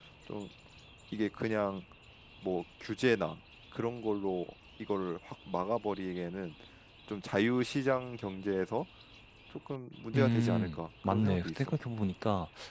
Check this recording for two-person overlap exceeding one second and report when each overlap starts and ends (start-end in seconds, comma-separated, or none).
10.1-11.7